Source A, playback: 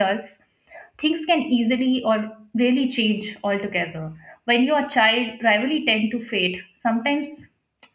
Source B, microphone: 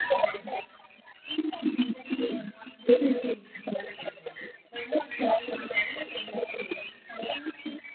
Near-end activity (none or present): none